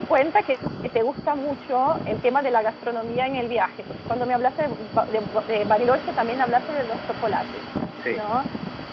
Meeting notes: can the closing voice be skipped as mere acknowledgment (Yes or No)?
Yes